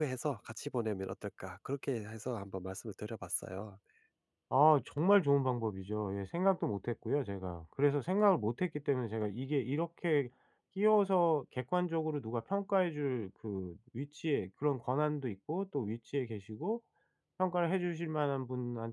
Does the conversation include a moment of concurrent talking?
No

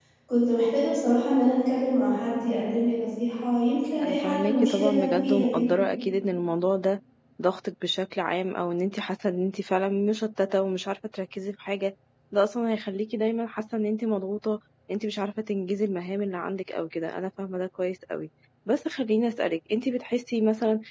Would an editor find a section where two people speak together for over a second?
Yes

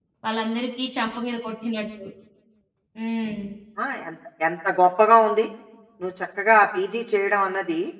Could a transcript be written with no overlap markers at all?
Yes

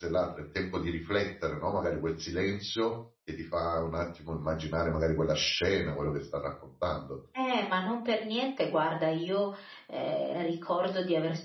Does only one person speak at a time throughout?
Yes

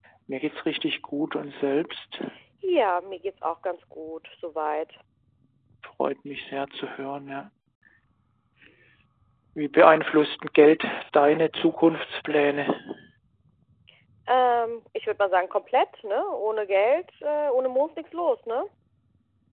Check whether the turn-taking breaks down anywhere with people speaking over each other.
No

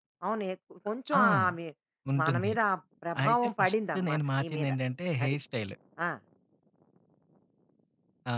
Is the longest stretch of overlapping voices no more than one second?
No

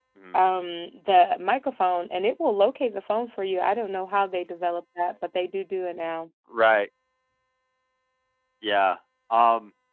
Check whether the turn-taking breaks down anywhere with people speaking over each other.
No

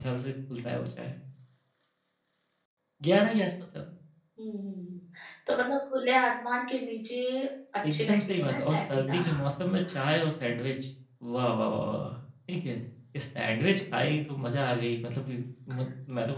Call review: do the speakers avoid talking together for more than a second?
No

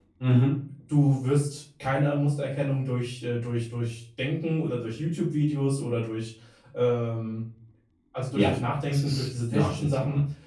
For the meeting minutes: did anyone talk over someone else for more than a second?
Yes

